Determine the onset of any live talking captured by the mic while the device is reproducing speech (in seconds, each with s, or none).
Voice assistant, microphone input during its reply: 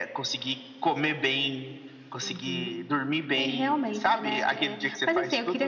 none